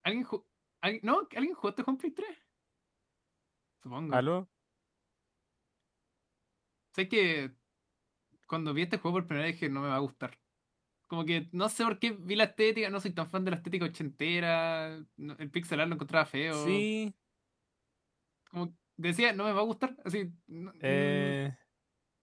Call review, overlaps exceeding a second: none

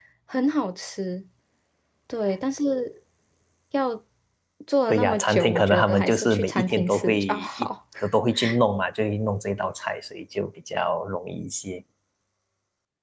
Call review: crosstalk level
present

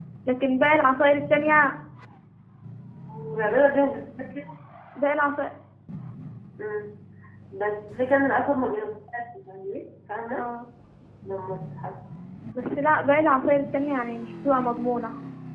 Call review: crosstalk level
none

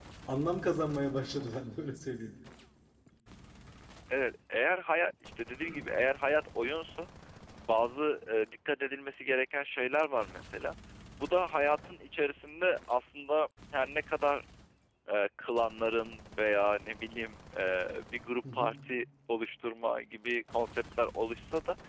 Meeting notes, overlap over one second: none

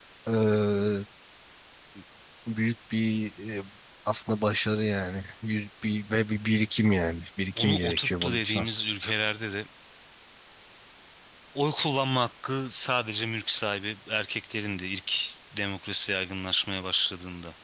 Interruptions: present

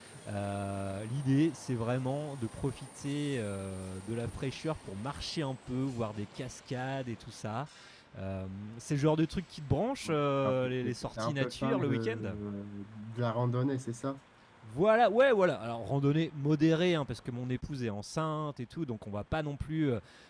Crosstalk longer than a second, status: present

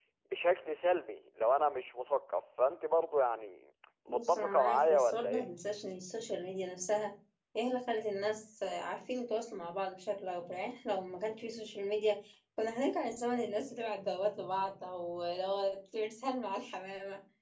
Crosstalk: present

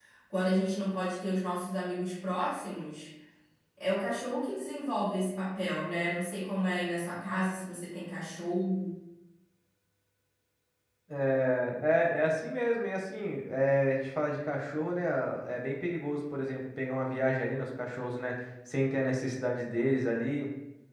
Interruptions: none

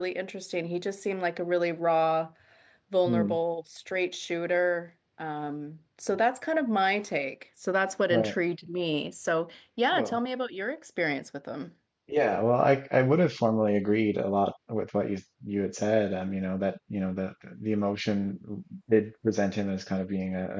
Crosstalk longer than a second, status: none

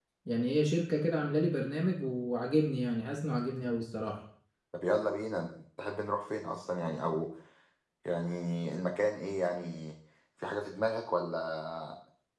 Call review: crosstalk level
none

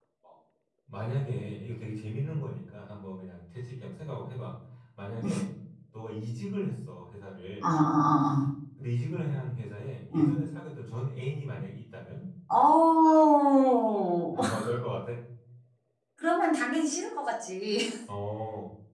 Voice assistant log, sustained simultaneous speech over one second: none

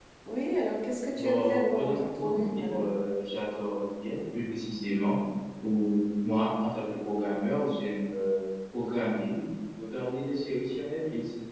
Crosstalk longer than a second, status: present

